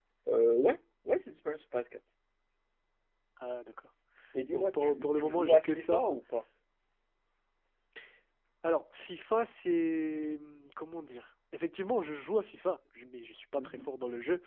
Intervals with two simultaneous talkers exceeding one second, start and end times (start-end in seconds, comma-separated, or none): 4.5-6.0